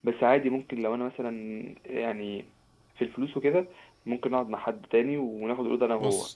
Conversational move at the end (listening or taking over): listening